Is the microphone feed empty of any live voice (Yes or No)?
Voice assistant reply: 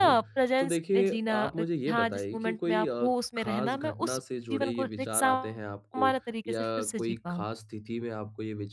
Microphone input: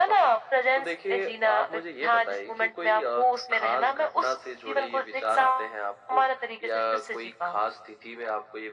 Yes